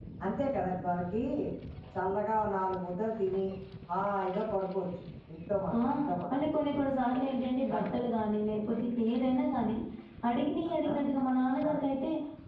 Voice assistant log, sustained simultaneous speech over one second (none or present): none